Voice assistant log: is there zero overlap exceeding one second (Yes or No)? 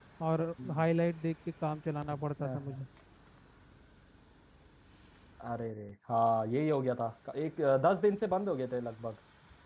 Yes